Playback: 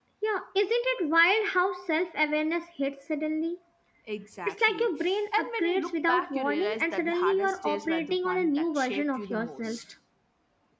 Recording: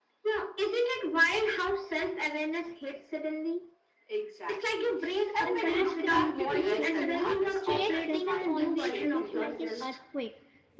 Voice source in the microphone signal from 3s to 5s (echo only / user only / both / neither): echo only